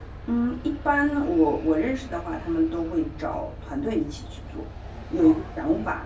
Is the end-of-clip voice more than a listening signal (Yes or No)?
No